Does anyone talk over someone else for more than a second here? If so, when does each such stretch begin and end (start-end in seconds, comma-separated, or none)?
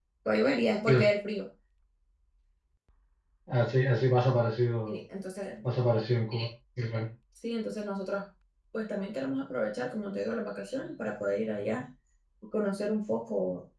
none